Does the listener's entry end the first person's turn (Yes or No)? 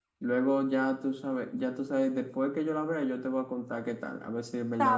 Yes